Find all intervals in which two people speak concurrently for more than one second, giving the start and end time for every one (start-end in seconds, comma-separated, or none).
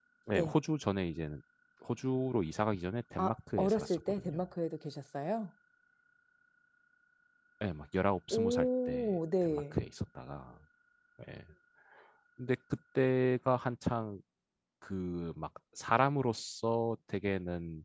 3.2-4.4, 8.3-9.8